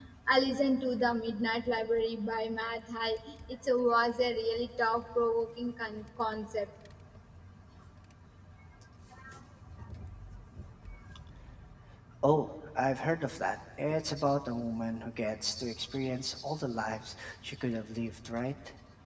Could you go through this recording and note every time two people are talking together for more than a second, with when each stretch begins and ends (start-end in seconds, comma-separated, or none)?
none